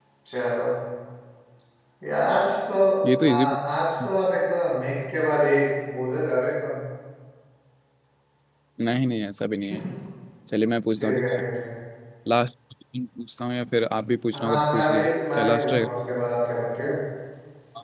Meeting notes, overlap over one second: present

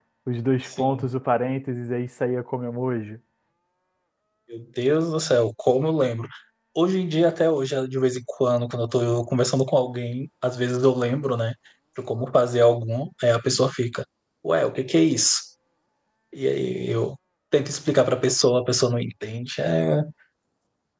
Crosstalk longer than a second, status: none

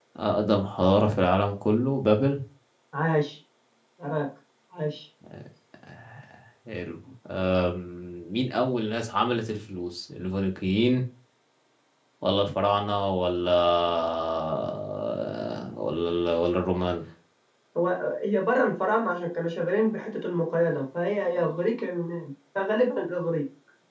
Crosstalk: none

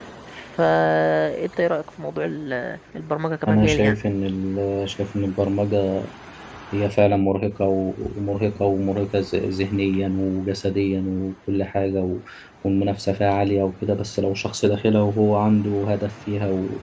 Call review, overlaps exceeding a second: none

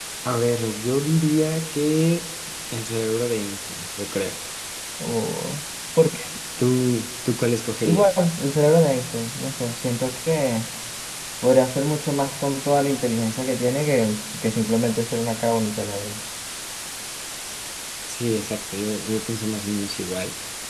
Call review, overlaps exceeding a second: none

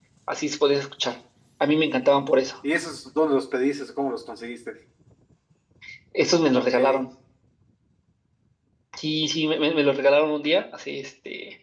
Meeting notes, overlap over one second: none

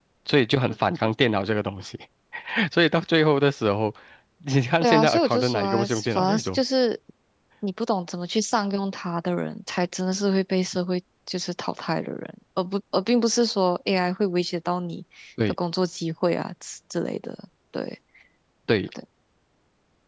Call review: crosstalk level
present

